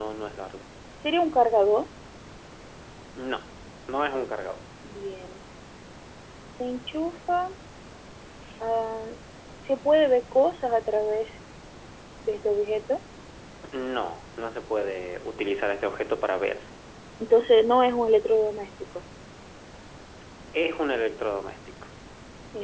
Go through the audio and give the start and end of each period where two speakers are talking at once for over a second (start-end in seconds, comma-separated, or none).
none